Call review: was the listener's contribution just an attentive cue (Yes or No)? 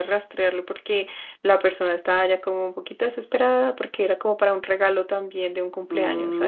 No